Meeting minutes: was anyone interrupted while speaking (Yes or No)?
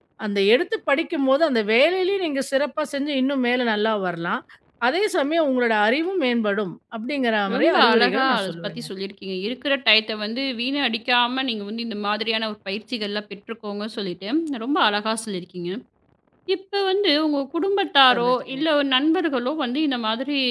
Yes